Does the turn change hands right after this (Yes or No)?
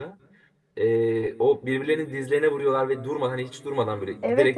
Yes